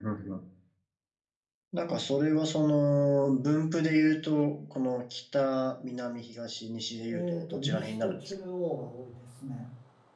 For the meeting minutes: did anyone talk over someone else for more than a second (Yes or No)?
Yes